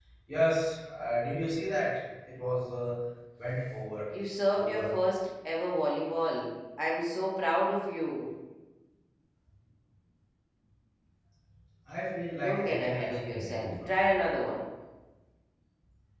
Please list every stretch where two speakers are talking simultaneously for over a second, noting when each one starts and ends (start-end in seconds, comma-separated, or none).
12.4-14.1